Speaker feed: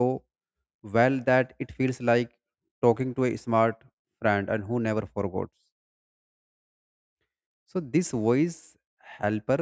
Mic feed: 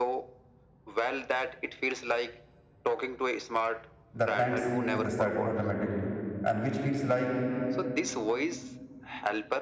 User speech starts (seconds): 4.1 s

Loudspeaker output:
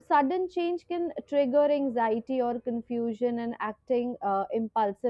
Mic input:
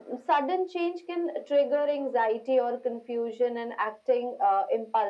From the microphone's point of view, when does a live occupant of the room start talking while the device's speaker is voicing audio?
none

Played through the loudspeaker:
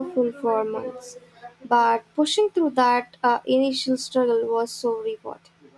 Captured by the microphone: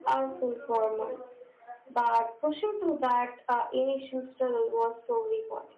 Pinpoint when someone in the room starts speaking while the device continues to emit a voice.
none

